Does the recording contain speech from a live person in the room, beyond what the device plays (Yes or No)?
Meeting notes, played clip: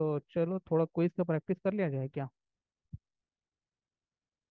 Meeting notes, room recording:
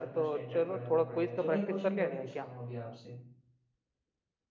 Yes